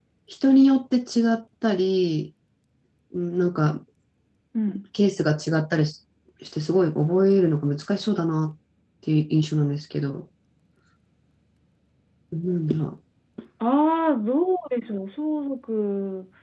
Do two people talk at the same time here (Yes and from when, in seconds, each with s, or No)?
No